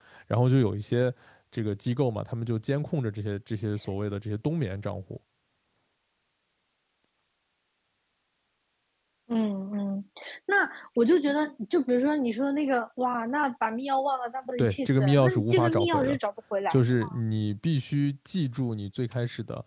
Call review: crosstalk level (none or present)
present